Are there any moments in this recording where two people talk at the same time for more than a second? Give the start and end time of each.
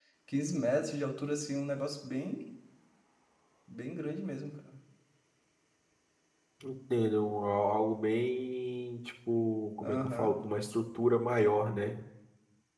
none

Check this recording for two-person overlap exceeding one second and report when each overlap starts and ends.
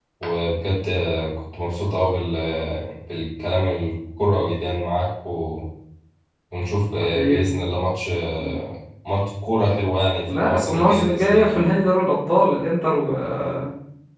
10.3-11.6

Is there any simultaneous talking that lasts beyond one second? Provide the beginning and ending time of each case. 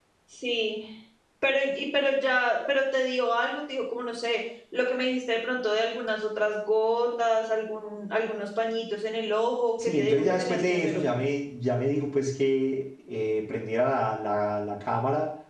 9.8-11.0

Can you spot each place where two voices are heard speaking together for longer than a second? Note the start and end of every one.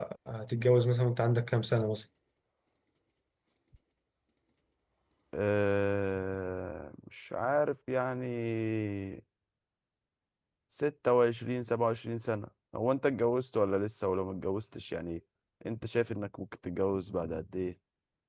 none

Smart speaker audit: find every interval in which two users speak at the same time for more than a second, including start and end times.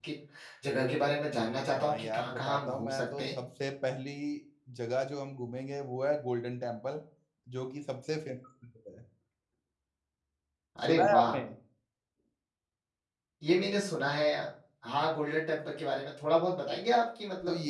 1.8-3.3

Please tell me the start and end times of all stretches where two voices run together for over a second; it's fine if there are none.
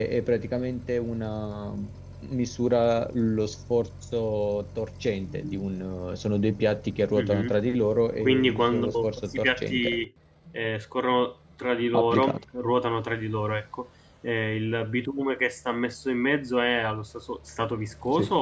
8.2-10.0

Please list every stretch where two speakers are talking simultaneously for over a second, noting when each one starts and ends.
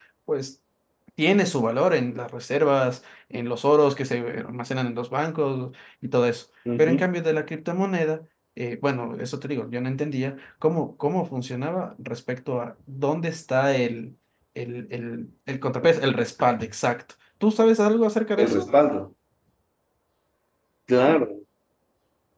none

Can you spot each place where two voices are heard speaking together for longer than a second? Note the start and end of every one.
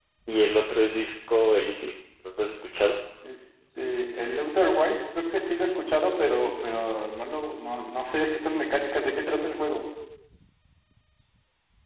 none

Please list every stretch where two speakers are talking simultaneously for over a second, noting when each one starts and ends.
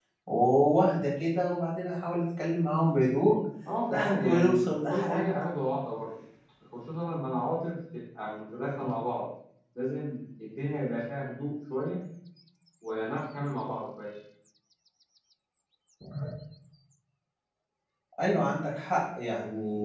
3.9-5.3

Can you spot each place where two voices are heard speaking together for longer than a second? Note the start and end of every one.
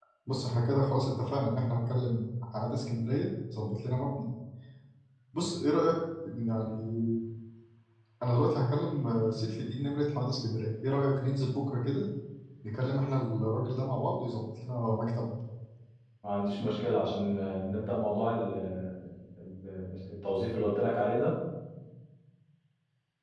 none

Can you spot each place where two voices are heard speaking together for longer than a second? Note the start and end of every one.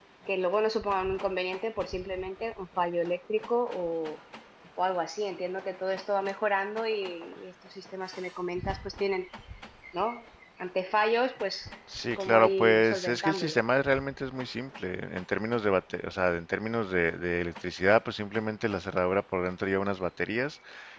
12.2-13.6

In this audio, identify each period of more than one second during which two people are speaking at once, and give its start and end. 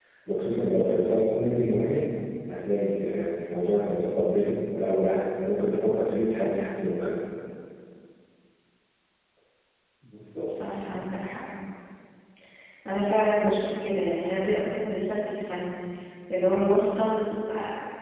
none

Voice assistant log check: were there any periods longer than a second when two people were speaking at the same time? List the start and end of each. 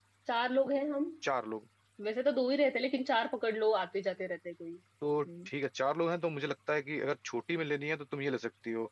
none

